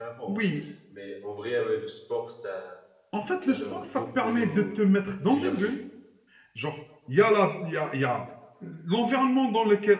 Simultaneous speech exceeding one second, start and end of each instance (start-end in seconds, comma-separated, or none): 3.4-4.8